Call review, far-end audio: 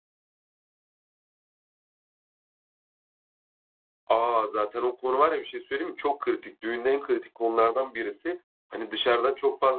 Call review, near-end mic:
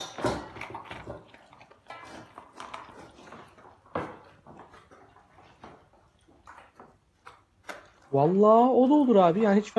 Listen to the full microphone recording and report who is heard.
user only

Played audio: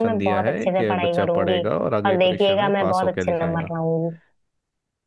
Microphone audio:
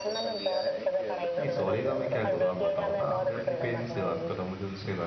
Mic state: both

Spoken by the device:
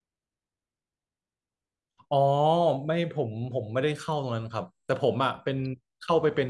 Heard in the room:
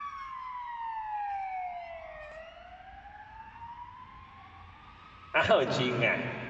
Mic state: user only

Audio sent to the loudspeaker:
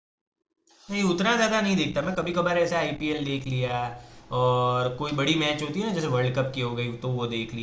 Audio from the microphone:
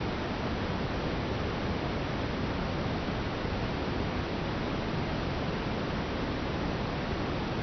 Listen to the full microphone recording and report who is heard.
neither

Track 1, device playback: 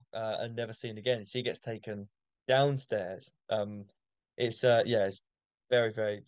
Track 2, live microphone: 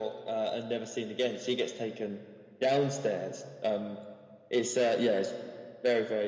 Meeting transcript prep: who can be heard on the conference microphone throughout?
echo only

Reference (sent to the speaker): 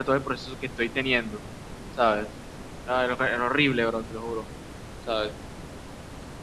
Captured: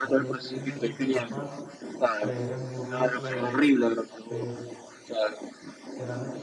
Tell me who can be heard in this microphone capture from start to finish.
both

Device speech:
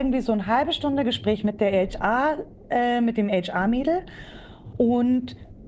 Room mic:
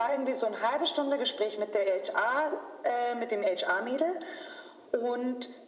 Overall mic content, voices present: echo only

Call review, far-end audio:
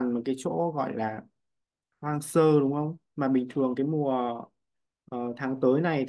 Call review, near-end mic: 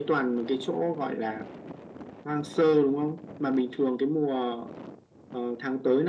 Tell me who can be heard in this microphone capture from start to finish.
echo only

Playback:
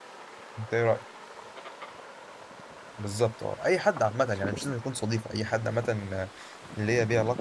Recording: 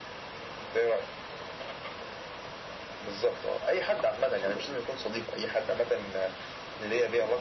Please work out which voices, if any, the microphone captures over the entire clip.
echo only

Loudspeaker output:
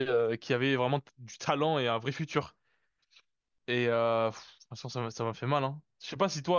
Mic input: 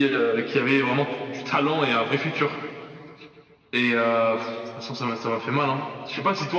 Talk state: echo only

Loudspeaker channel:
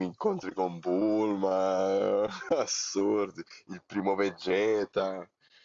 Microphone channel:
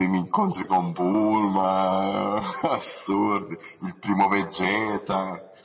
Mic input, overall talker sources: echo only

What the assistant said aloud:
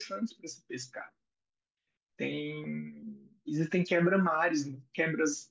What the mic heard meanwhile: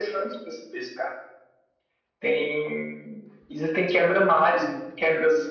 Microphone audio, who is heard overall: echo only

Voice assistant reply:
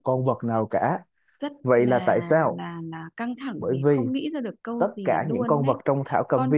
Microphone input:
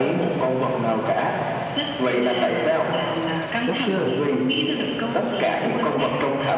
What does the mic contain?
both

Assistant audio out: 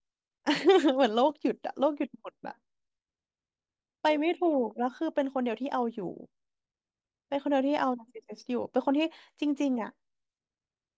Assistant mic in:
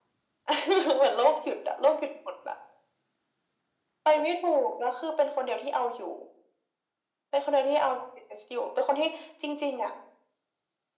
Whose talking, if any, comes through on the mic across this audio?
echo only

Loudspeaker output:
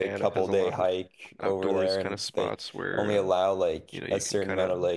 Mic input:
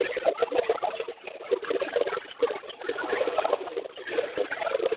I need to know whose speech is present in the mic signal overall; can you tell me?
both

